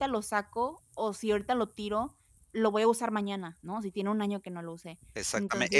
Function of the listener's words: taking over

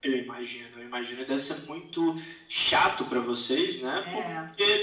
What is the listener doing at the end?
listening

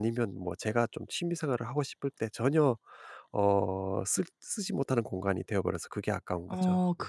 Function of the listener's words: taking over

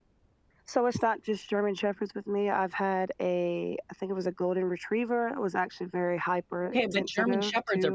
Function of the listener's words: taking over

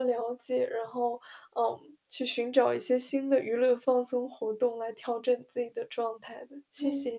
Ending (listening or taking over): taking over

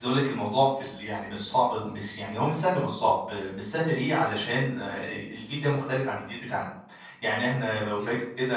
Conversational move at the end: listening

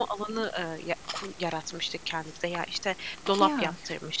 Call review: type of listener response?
listening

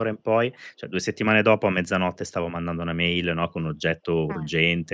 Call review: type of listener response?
listening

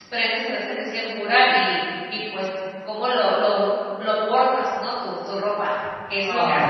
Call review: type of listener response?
taking over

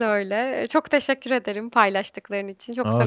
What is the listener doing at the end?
taking over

